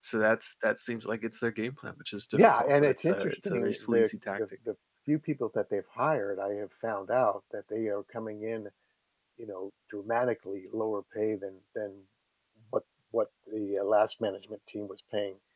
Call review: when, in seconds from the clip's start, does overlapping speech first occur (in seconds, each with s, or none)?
2.3 s